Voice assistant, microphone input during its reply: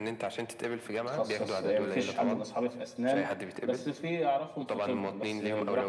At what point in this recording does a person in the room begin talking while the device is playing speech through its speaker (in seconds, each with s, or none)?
1.1 s